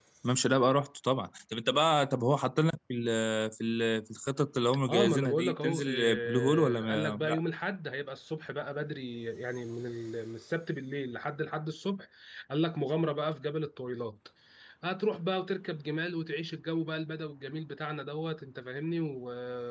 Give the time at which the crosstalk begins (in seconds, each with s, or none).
4.9 s